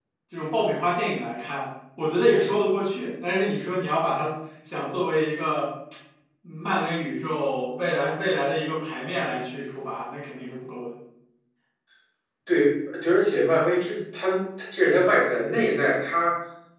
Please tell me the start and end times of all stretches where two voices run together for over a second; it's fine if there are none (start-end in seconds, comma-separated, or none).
none